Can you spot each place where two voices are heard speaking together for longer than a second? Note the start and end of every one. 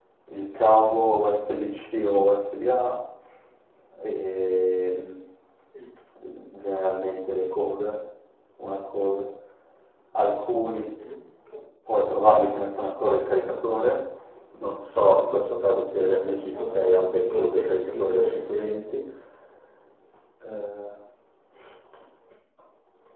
16.0-18.8

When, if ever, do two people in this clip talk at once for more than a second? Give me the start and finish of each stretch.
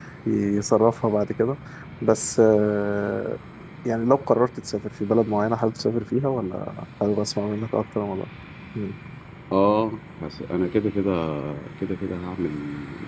none

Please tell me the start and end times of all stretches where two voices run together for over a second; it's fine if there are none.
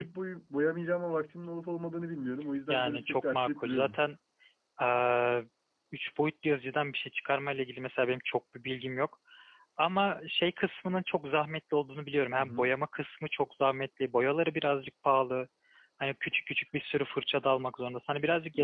2.7-4.0

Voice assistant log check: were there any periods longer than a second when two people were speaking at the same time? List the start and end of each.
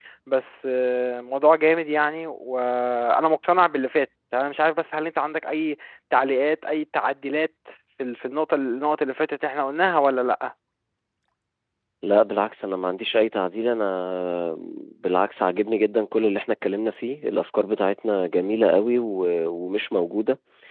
none

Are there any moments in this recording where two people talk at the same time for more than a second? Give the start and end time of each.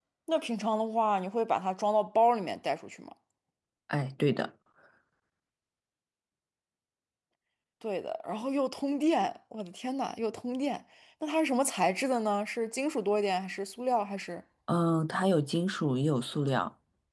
none

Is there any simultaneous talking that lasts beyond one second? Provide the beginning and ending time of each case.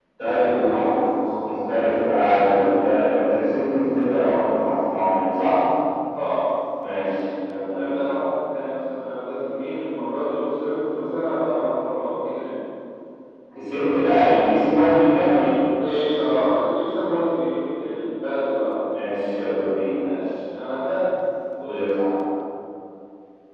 none

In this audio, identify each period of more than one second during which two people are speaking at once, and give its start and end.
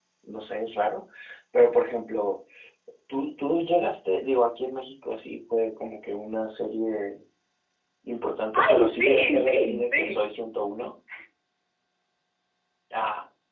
8.6-10.2

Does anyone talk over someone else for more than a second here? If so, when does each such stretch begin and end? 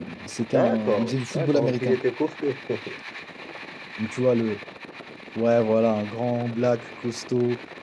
0.5-2.0

